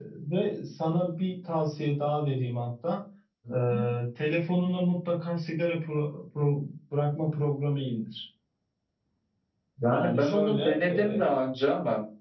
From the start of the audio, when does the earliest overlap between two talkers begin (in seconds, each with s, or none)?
9.8 s